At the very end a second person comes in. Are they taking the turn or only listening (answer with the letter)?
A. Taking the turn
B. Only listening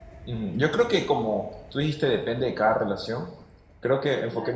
B